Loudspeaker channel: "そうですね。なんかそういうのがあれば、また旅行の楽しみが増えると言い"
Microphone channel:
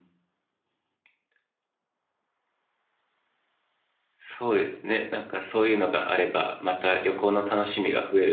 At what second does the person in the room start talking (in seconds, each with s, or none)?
none